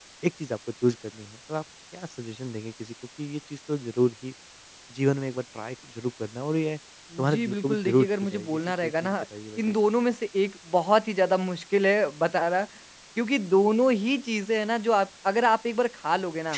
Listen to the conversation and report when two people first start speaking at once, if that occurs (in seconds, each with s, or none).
7.1 s